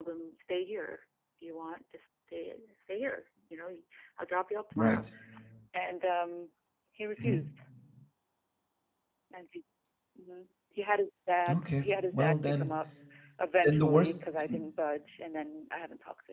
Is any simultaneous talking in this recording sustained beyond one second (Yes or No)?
Yes